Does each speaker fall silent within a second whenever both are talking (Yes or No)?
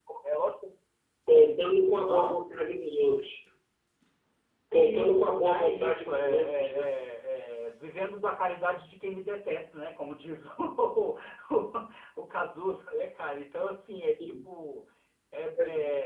No